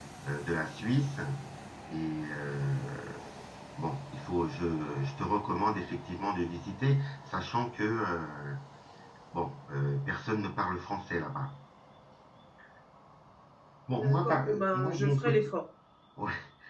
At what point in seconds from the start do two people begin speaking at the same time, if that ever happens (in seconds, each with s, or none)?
14.0 s